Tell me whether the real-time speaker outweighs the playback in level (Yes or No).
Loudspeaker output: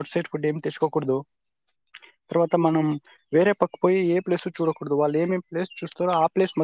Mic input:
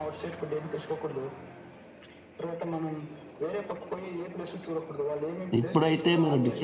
Yes